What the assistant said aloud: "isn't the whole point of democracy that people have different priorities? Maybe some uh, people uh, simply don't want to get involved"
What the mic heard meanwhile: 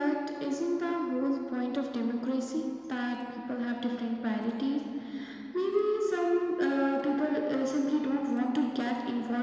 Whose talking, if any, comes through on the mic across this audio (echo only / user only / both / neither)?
echo only